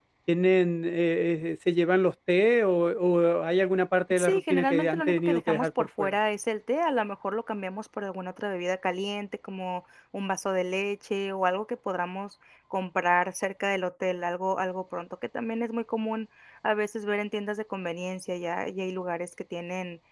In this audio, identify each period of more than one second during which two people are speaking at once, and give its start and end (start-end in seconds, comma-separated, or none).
4.1-6.2